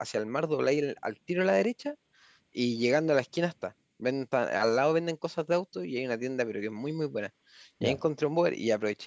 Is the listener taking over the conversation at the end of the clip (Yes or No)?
No